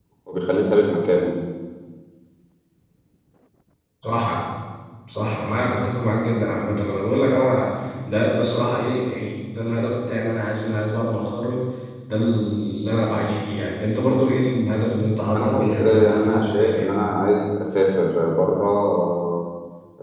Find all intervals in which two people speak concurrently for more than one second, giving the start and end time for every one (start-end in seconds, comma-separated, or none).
15.3-16.9